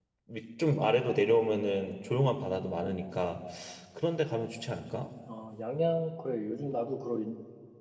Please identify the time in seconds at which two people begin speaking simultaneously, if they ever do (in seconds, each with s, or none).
none